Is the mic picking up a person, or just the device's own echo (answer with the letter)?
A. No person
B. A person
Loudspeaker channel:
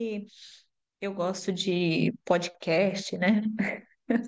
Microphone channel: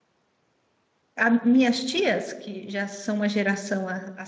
B